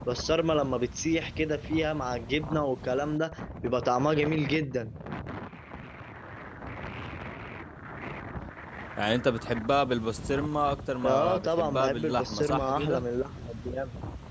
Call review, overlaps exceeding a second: present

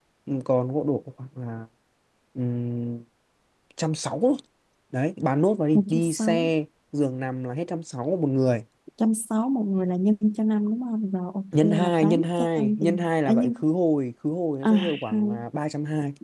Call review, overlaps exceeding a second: present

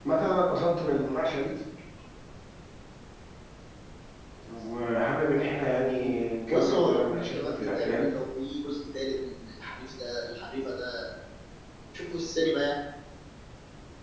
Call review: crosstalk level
present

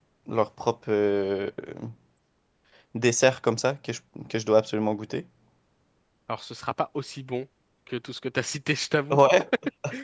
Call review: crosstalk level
none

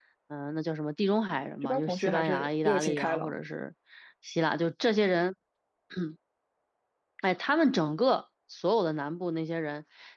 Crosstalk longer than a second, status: present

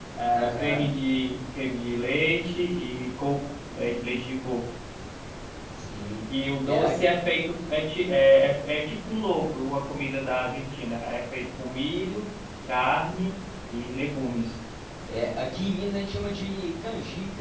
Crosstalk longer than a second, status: none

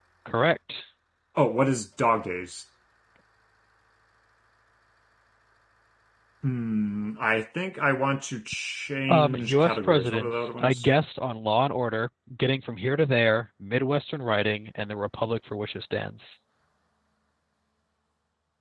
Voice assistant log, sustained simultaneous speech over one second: present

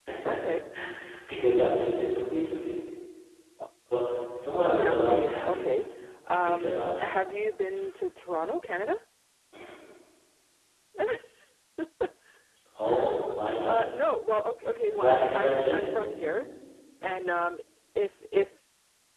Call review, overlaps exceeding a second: present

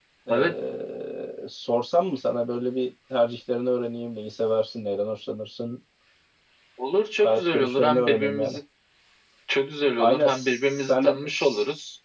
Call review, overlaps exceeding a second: present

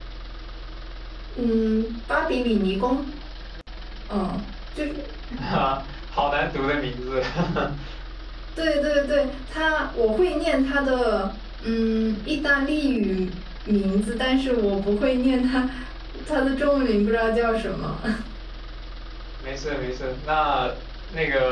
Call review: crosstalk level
none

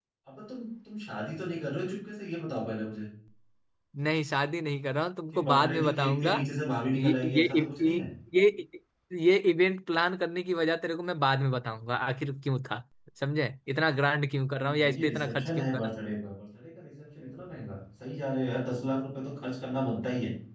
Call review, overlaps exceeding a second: present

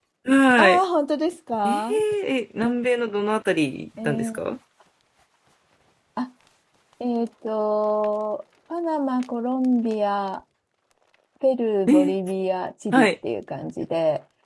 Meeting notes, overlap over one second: none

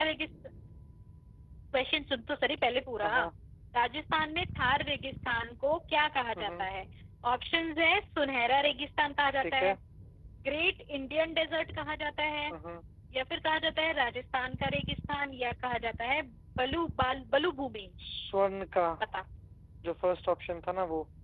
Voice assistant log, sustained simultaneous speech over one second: none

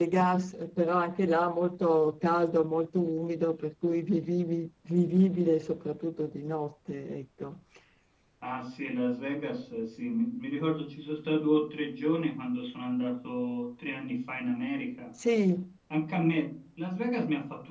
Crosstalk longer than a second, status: none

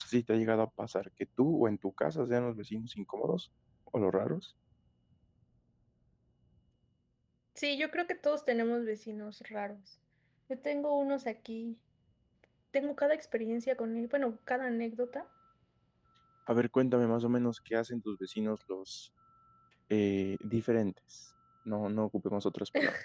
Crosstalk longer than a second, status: none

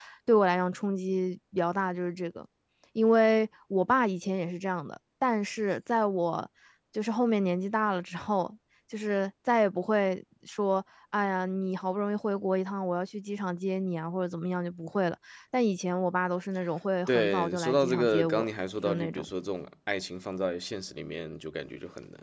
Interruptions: present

